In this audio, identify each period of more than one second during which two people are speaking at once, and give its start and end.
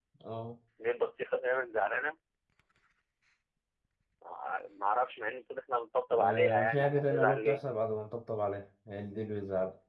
6.2-7.6

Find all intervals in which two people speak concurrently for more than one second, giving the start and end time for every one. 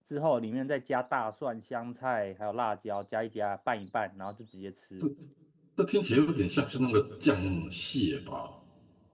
none

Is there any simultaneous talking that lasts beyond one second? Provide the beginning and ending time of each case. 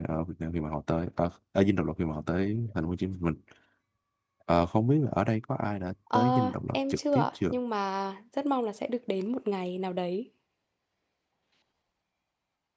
6.1-7.4

